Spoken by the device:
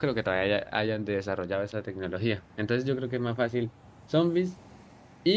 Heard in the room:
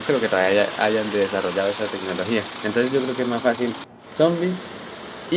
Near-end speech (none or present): none